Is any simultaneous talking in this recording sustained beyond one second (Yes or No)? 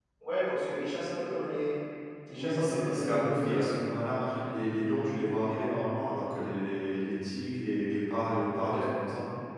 Yes